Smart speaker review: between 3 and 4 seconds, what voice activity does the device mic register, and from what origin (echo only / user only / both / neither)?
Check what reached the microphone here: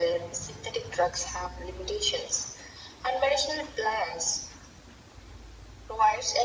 echo only